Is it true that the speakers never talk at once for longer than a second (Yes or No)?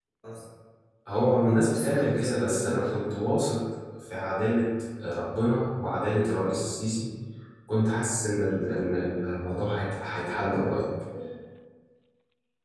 No